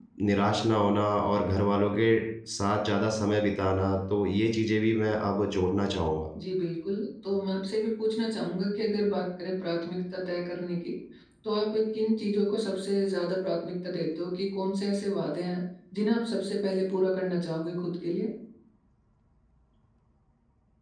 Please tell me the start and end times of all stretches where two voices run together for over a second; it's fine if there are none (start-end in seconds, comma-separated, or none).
none